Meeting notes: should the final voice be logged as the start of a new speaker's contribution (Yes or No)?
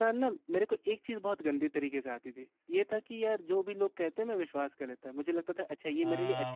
Yes